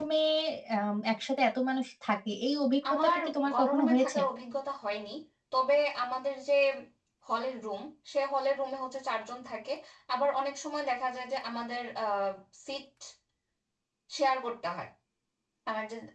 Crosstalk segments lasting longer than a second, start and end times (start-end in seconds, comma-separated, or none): 2.9-4.2